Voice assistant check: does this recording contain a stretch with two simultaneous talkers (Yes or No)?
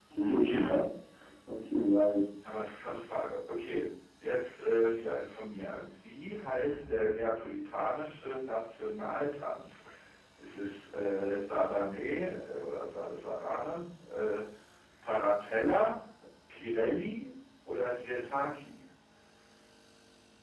No